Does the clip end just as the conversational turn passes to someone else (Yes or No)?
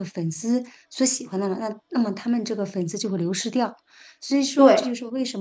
No